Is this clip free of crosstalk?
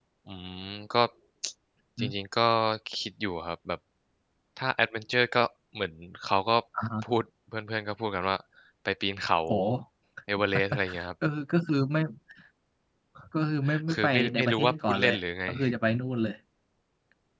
No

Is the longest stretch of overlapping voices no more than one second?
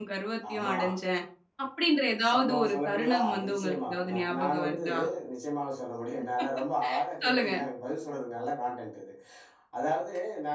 No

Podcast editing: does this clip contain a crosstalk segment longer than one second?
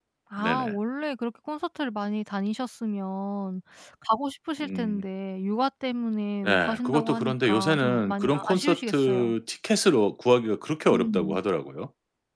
Yes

